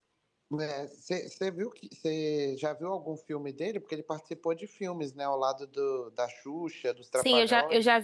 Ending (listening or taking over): taking over